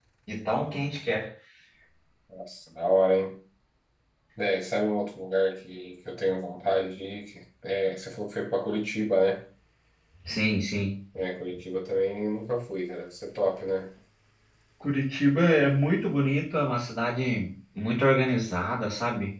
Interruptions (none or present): none